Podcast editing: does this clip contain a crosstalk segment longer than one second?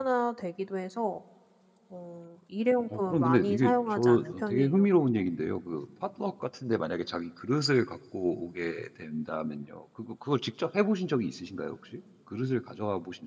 Yes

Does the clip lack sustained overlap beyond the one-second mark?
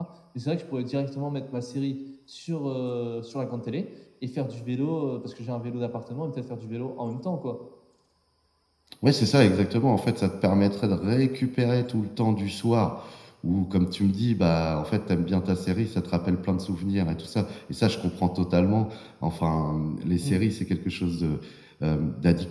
Yes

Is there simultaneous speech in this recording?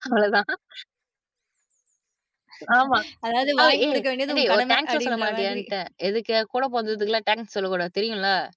Yes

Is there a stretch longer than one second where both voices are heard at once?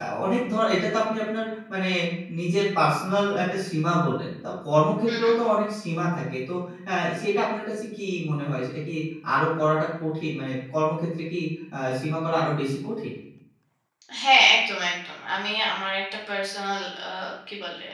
No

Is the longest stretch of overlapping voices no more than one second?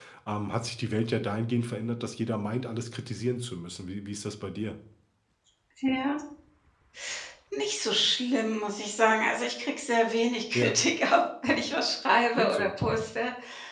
Yes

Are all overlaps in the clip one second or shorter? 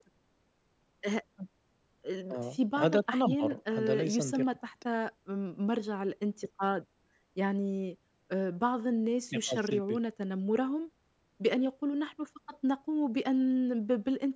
No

